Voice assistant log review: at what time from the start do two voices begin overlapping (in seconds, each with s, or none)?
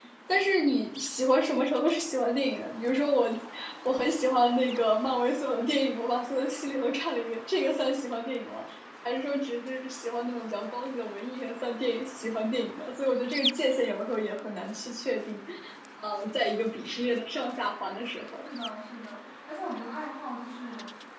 none